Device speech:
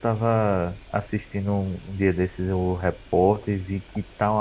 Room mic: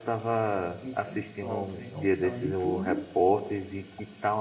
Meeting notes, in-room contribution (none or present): present